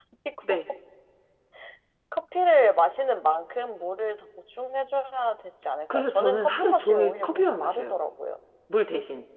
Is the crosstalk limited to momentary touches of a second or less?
No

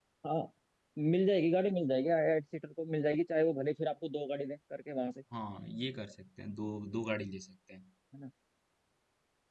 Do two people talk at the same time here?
No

